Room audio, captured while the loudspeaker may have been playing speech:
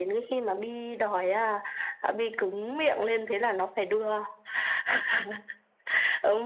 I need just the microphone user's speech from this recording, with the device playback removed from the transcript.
none

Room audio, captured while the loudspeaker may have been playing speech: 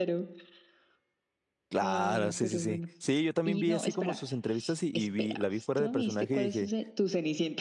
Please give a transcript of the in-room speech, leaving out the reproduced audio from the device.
claro, sí, sí, sí. Sí, yo también vi así como sus entrevistas y, y vi, la vi fuera de personaje y dije,

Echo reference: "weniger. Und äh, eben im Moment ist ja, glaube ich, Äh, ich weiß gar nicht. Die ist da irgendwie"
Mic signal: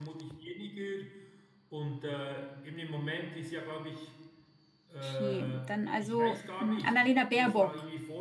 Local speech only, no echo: Okay. Dann also mh, Annalena Baerbock.

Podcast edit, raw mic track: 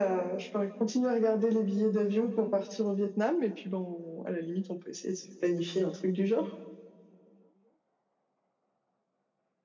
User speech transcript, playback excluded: none

